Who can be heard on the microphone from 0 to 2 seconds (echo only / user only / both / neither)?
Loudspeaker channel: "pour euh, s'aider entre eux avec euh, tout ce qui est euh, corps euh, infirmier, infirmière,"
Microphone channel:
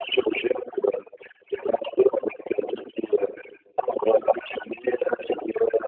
echo only